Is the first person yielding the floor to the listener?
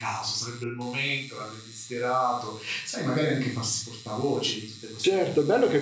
Yes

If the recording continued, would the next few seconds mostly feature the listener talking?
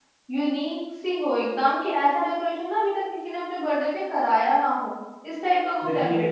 Yes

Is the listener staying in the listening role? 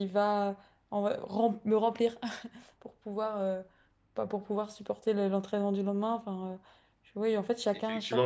No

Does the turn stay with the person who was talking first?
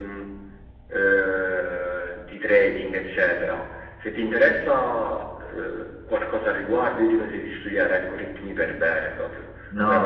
No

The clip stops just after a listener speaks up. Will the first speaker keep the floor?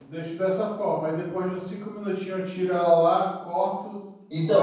No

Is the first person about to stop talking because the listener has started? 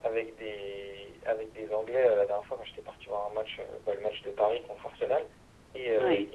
No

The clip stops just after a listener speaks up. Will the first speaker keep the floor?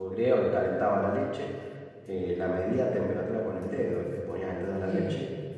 Yes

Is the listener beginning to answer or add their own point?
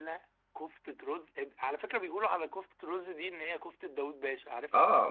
Yes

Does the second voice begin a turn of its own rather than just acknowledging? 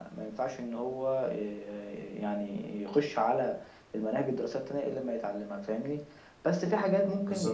No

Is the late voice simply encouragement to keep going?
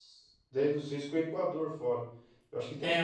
No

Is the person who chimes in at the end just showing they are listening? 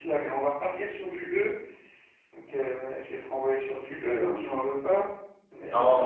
No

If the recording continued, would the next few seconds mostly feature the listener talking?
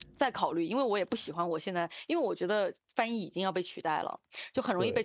No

